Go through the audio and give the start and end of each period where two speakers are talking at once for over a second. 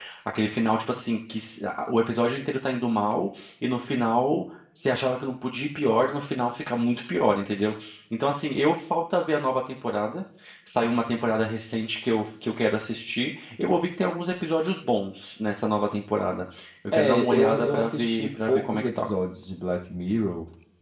16.9-19.1

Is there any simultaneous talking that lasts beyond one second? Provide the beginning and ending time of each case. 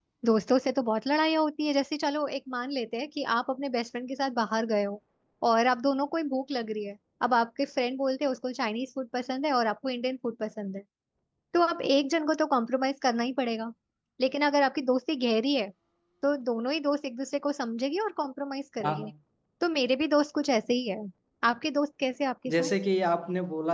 none

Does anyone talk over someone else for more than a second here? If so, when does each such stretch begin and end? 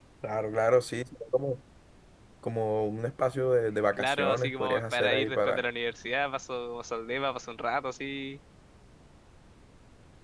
4.0-5.6

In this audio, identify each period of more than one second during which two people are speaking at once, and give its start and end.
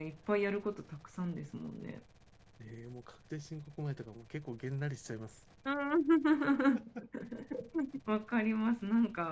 none

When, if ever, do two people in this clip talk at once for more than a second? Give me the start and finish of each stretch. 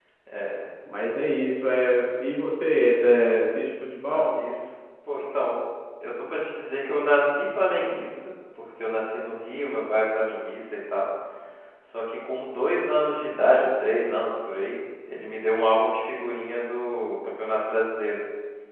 none

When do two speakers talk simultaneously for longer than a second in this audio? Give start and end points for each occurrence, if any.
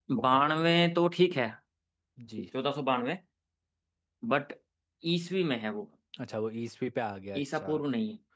none

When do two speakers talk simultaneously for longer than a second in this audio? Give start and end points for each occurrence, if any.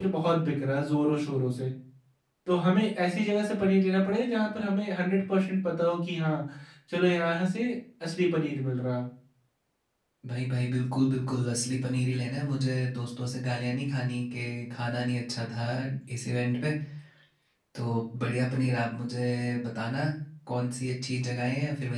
none

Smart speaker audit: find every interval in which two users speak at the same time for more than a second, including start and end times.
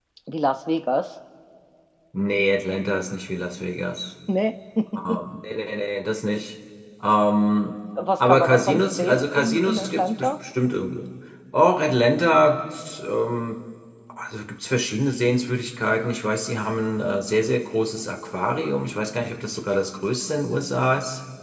8.2-10.3

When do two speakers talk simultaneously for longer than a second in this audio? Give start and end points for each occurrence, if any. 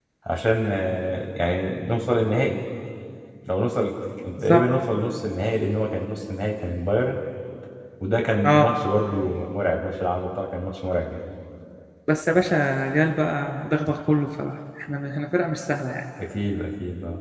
none

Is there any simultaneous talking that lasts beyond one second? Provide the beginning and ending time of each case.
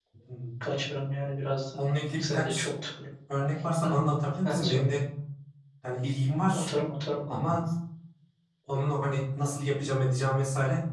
none

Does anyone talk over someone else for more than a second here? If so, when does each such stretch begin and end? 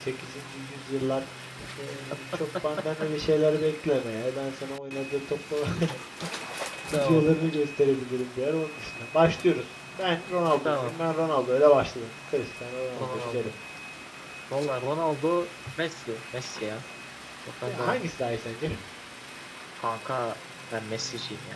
none

